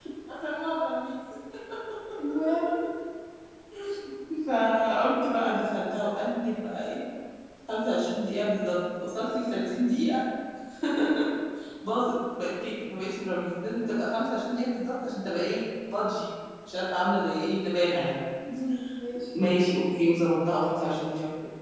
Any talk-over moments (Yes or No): No